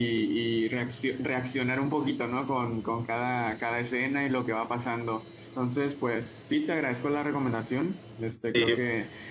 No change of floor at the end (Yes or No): Yes